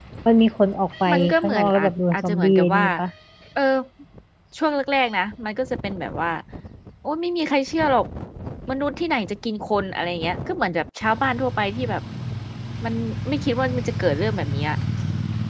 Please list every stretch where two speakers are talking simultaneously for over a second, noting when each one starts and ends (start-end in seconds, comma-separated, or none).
1.1-2.8